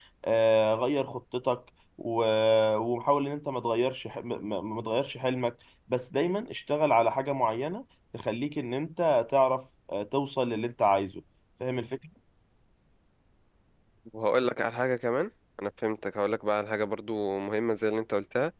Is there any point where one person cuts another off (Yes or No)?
No